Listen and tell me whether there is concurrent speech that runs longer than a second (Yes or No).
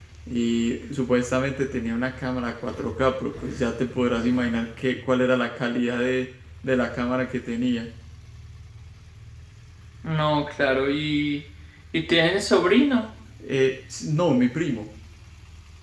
No